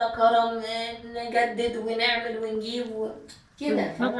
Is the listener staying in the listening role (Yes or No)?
No